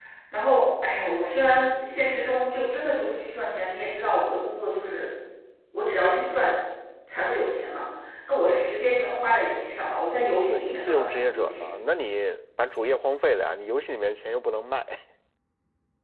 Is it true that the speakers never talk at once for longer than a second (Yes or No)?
No